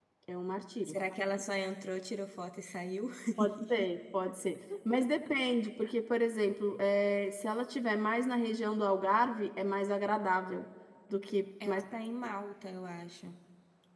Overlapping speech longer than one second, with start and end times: none

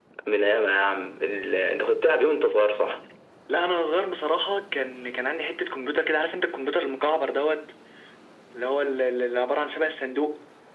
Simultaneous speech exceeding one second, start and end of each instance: none

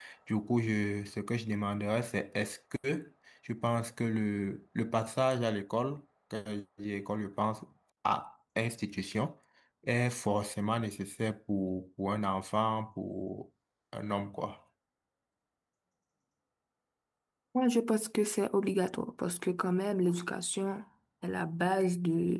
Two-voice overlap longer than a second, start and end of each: none

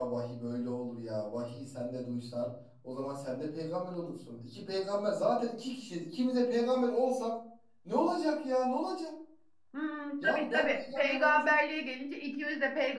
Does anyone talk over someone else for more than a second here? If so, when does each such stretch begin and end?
10.2-11.4

